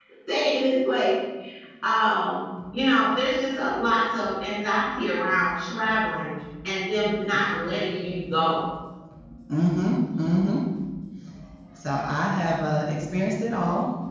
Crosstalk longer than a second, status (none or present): none